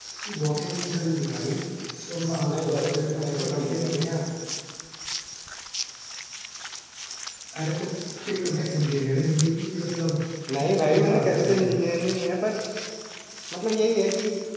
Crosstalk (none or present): present